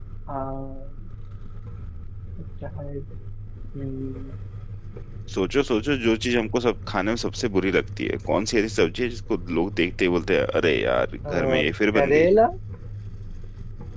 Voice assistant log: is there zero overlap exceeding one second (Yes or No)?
Yes